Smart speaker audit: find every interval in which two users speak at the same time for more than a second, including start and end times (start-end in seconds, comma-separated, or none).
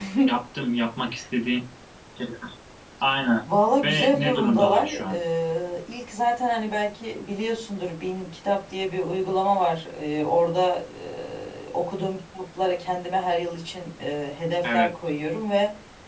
3.8-5.2